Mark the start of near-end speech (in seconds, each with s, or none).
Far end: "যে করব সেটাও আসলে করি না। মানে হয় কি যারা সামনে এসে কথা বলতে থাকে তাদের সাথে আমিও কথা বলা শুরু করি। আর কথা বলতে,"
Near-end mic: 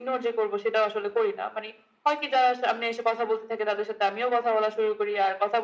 none